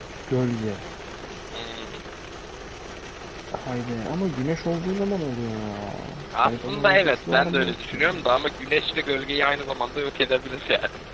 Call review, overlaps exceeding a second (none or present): present